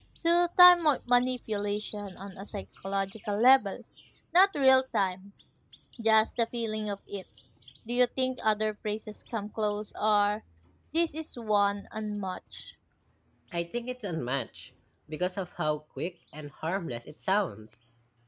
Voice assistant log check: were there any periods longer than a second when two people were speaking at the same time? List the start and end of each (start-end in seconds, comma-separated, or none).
none